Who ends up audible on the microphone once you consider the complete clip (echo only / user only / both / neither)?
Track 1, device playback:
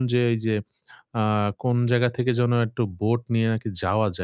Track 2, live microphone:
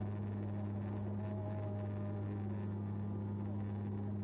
neither